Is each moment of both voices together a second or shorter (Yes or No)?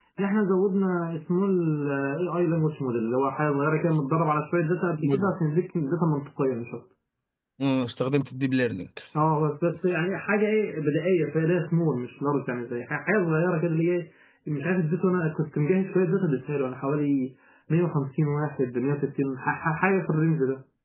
Yes